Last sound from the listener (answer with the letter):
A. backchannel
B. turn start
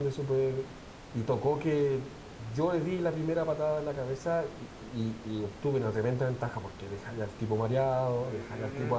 B